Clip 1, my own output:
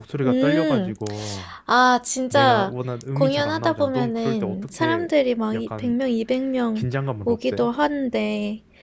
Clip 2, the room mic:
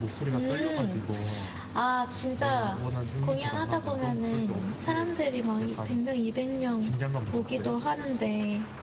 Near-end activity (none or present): none